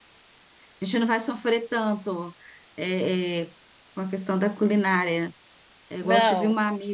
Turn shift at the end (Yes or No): No